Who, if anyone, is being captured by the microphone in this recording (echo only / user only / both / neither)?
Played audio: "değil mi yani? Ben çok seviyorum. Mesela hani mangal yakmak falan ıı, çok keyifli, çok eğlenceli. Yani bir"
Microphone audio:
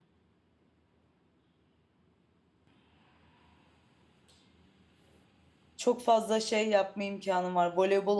user only